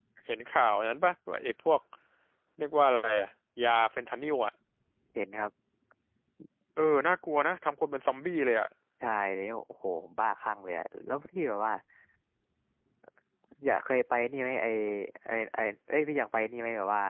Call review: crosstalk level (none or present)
none